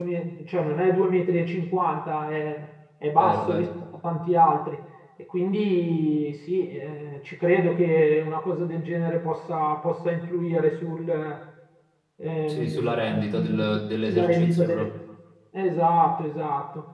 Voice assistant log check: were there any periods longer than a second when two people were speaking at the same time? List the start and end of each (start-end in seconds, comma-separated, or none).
12.5-14.9